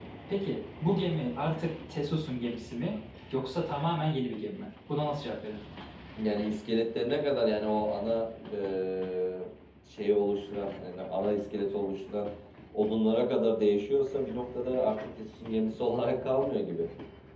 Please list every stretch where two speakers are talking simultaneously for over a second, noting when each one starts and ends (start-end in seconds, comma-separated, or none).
none